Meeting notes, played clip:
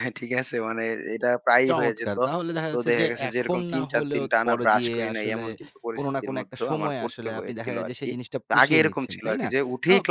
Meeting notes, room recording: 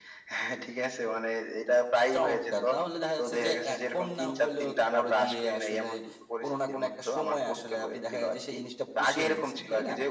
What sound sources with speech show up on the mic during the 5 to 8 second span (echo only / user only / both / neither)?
echo only